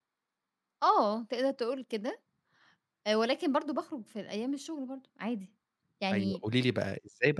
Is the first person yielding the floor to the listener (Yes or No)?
Yes